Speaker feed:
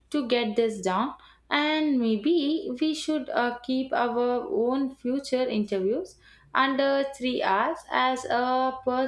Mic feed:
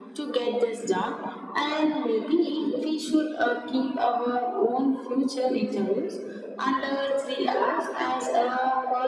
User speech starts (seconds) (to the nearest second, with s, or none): none